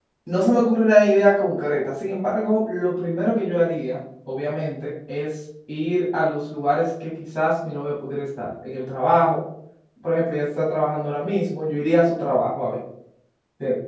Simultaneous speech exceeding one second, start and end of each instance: none

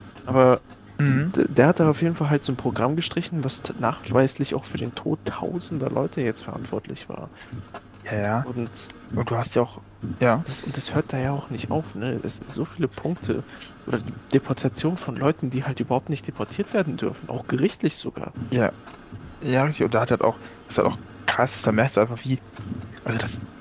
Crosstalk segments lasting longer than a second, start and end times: none

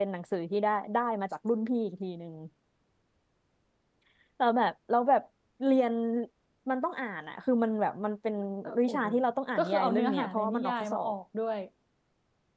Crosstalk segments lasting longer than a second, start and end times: 9.6-11.1

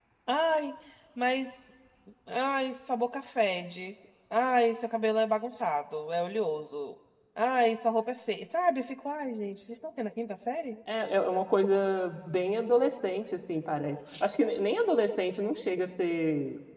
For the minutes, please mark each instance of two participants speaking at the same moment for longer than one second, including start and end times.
none

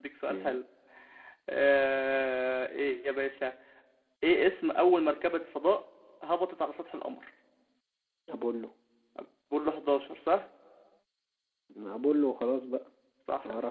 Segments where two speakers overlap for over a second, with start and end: none

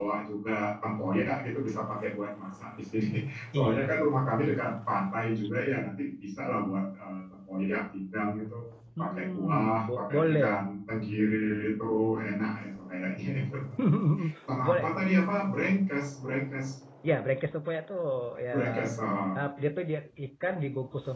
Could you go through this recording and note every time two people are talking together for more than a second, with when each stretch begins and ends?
9.0-10.5

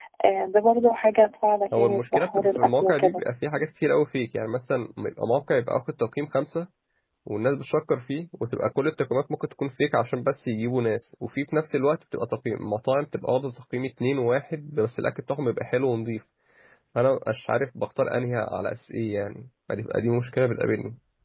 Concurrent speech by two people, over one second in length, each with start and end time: 1.8-3.2

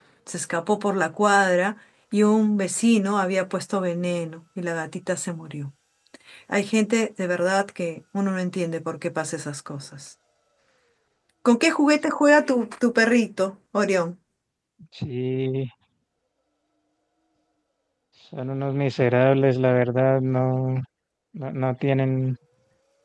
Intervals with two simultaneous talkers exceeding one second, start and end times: none

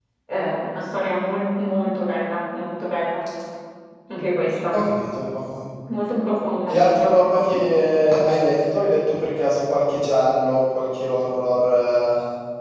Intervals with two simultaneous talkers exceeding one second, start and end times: none

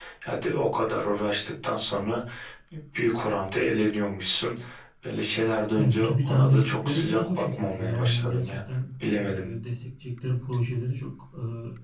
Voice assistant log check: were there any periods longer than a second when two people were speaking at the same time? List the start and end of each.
5.8-8.6

